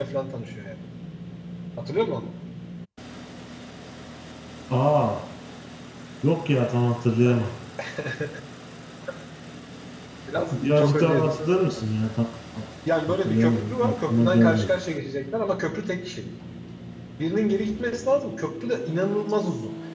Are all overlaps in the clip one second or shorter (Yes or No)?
No